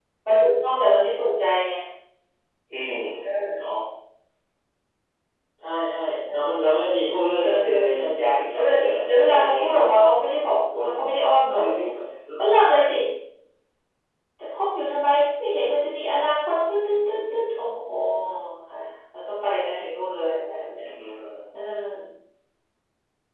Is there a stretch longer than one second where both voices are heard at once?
Yes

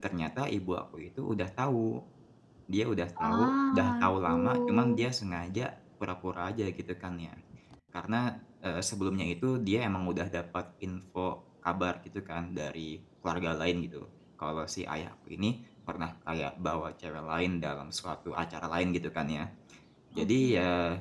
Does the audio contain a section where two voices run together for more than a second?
Yes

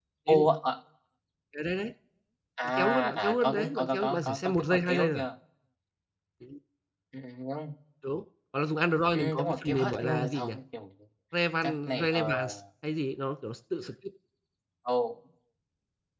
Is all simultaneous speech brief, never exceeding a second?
No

